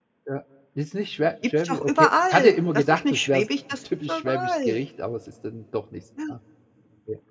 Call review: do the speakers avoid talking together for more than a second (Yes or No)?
No